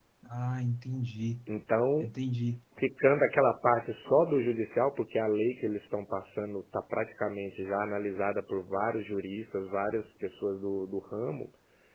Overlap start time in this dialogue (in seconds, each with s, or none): none